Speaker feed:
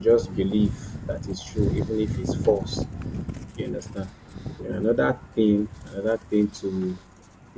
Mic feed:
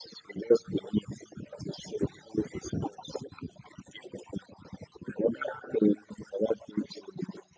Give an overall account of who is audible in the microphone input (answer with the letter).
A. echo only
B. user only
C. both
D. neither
A